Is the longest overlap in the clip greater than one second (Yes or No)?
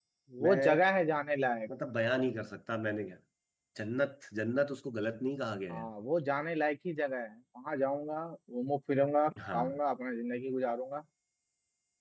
No